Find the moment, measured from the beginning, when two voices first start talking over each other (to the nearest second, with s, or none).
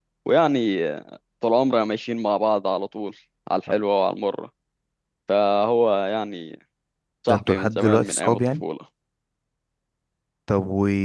7 s